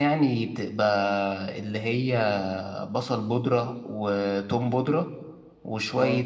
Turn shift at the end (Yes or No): No